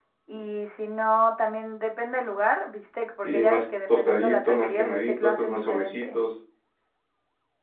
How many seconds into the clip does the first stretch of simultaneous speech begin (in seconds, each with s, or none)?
3.2 s